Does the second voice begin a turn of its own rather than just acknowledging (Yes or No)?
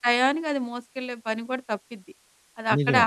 No